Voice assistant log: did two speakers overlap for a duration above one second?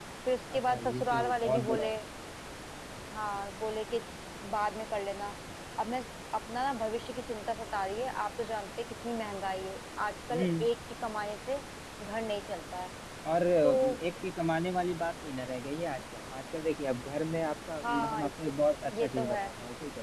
Yes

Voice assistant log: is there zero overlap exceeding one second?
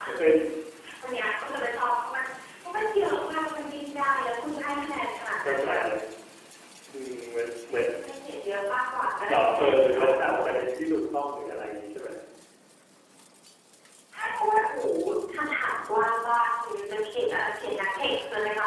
No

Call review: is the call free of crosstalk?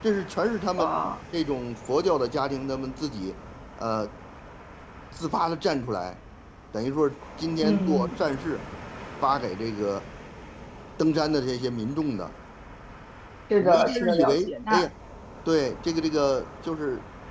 No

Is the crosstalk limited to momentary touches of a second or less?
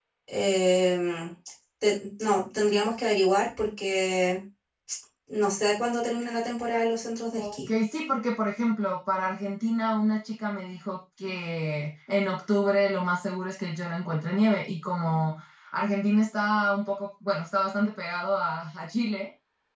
Yes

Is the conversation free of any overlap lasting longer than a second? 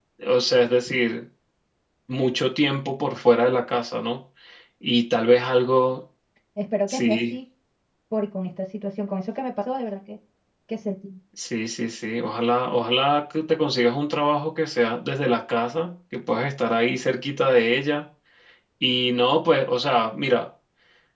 Yes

